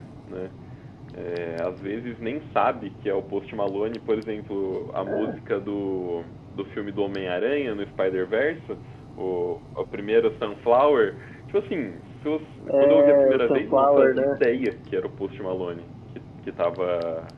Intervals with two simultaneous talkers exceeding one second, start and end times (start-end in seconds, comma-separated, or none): 12.7-14.4